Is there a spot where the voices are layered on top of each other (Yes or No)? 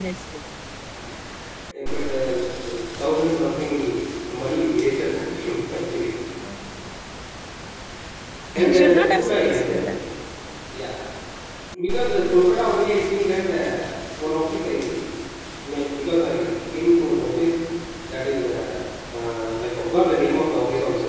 Yes